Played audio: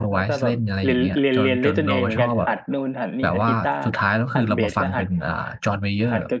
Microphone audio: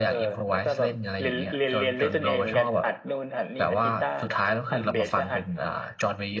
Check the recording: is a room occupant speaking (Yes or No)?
No